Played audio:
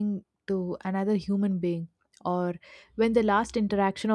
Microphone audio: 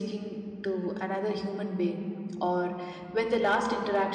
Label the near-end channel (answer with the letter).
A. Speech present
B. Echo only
B